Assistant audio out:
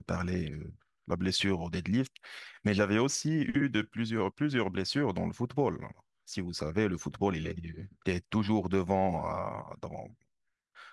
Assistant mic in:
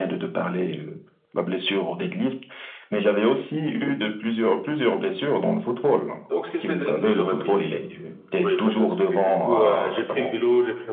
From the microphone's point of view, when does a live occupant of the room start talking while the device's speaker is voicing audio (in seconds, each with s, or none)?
6.3 s